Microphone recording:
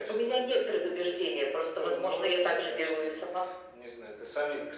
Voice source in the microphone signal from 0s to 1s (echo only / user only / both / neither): echo only